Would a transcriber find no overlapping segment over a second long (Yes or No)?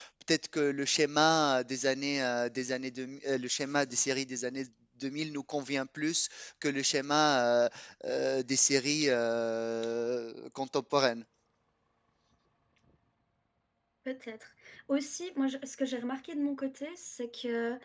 Yes